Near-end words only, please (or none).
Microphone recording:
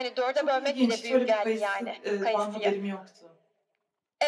Çok ilginç, hiç öyle bir kayısı eee, dan haberim yoktu.